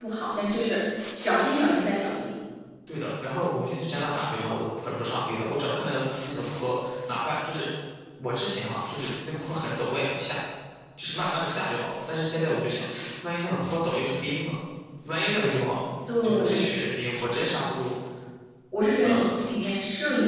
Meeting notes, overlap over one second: none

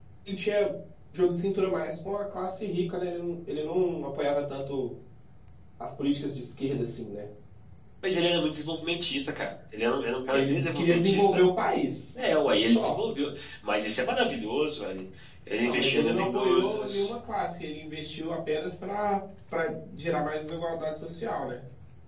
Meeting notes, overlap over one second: present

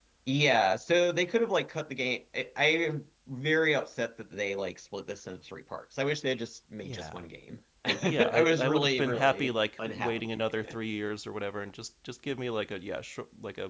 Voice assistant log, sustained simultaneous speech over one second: present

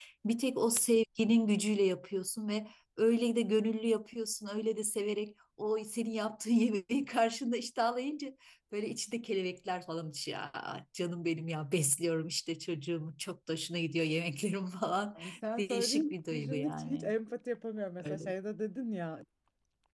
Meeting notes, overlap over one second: present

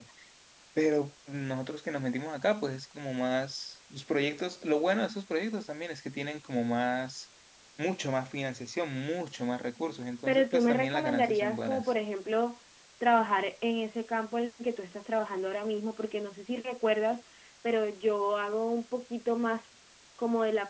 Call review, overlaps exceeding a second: present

